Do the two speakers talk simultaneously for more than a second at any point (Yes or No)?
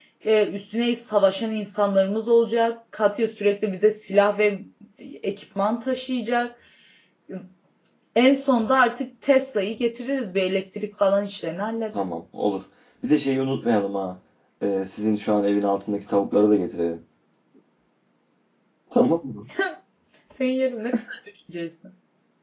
No